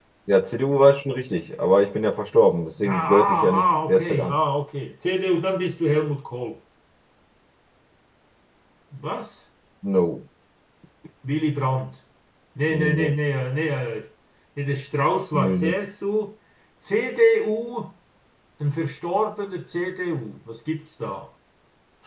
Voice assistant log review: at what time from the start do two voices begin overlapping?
2.8 s

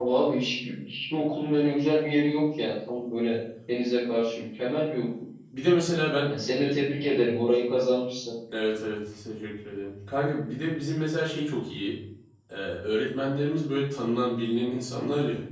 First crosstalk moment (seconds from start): none

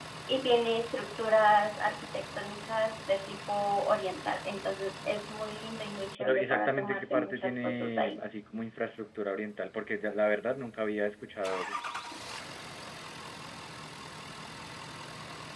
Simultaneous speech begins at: 6.2 s

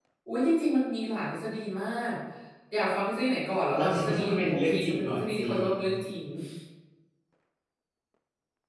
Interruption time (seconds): 3.7 s

